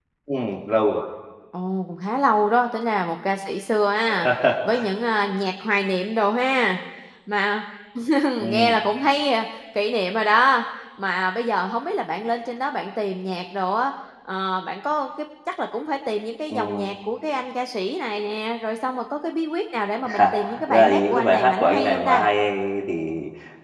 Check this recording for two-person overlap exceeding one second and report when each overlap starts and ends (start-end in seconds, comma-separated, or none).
20.0-22.2